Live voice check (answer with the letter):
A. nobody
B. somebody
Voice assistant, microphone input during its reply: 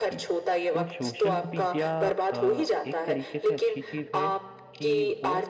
B